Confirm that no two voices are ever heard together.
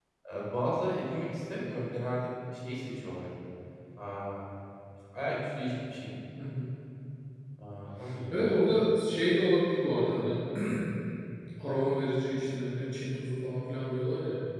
Yes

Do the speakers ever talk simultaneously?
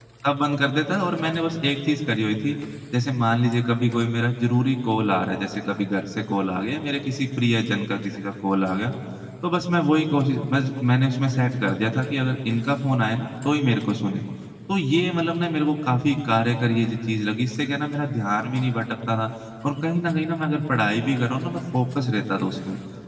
No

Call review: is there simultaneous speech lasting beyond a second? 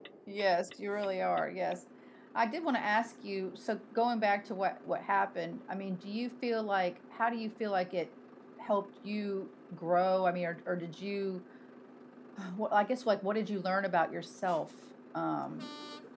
No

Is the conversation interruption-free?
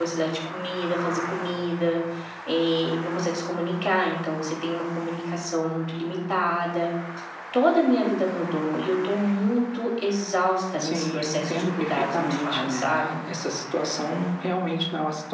No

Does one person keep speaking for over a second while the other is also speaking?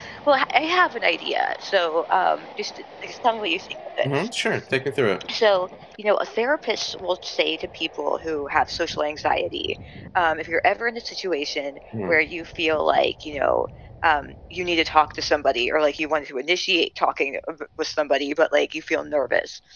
No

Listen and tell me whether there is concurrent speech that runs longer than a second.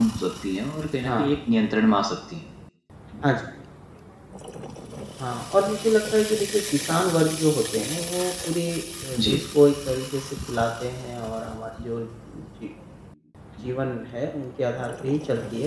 No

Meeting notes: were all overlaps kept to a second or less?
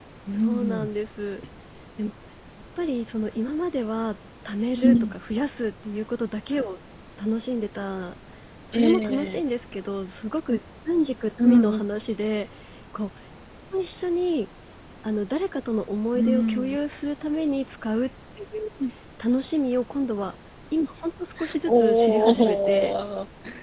No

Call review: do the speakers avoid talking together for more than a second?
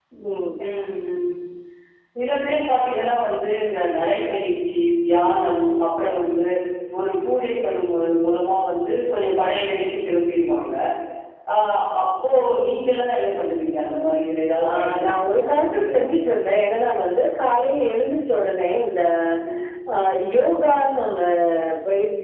No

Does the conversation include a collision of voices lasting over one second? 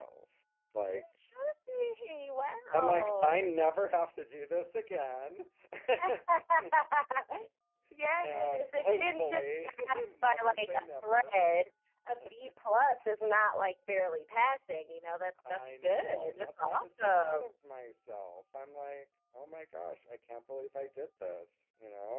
Yes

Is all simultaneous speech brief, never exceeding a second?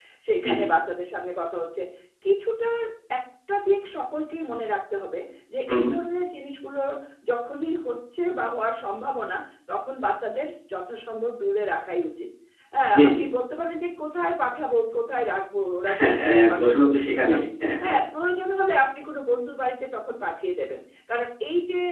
No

